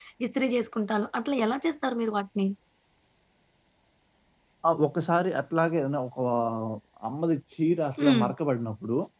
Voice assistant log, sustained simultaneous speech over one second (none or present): none